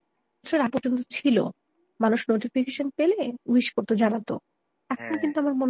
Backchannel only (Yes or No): Yes